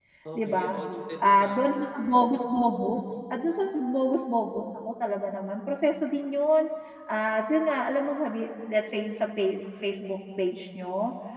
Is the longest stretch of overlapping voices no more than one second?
Yes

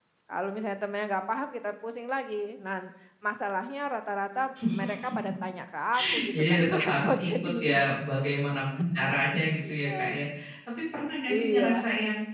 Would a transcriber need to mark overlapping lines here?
Yes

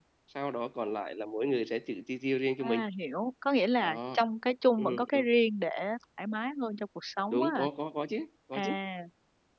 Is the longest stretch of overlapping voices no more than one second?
Yes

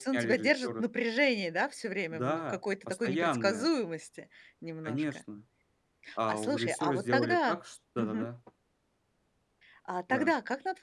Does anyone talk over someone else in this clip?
Yes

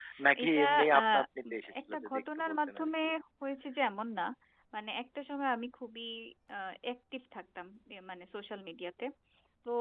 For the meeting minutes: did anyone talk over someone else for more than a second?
Yes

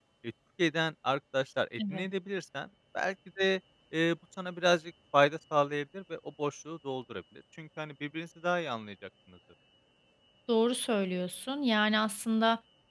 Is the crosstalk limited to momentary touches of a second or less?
Yes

